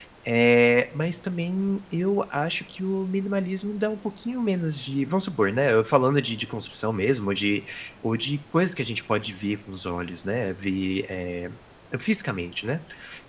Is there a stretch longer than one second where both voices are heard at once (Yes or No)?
No